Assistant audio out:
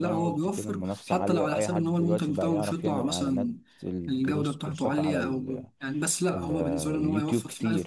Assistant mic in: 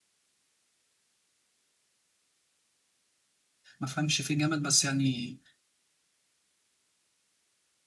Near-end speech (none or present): present